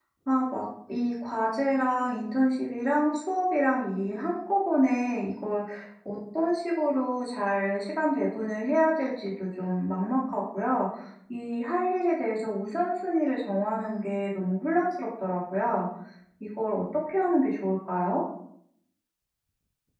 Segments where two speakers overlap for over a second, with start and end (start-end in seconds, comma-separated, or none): none